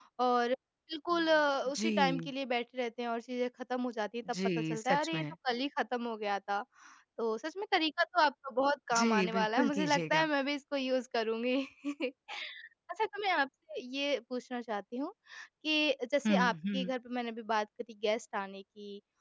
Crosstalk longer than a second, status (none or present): present